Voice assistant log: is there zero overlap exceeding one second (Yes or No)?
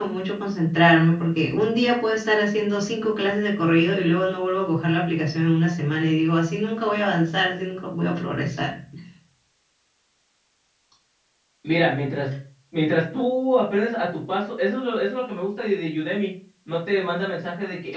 Yes